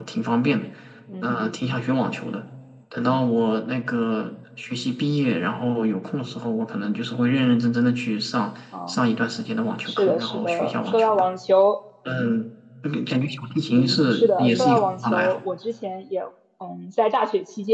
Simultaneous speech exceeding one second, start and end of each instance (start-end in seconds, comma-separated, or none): 9.8-11.3, 13.9-15.4